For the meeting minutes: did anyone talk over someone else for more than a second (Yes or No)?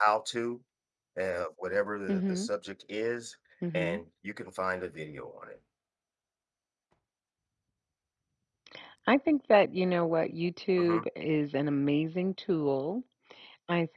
No